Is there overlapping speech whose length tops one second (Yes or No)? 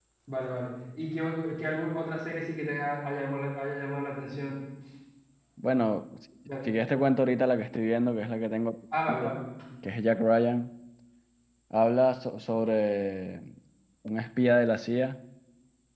No